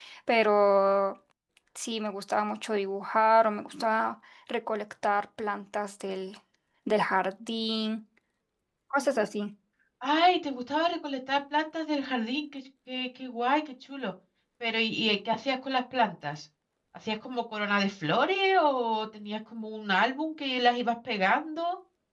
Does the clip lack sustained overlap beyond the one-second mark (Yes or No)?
Yes